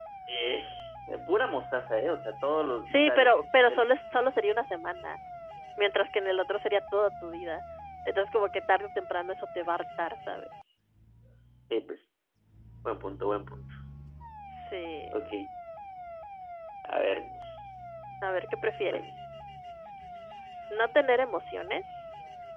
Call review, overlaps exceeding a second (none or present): none